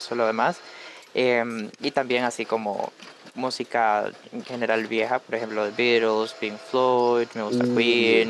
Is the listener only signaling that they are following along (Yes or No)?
Yes